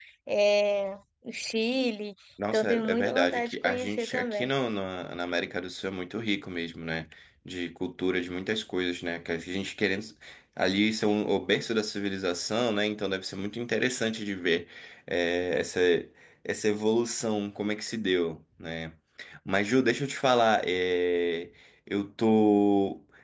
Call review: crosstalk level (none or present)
present